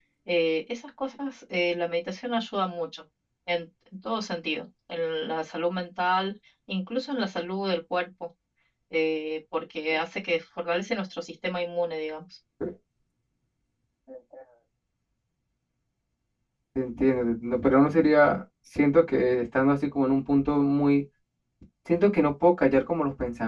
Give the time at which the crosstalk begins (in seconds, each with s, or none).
none